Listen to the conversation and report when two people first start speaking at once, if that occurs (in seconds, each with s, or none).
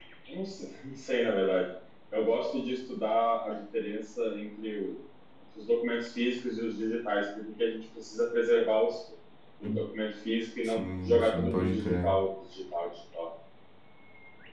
10.6 s